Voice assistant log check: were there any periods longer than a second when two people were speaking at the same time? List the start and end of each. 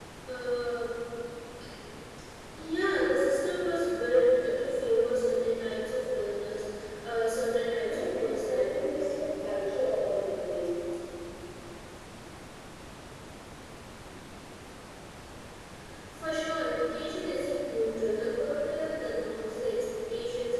7.8-9.1

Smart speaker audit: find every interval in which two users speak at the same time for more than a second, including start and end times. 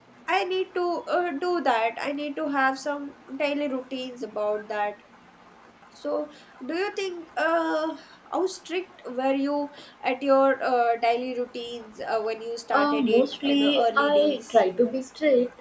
12.7-14.6

